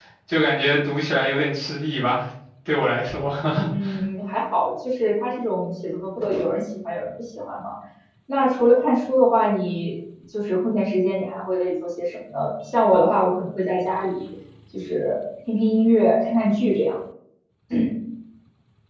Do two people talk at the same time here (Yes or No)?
No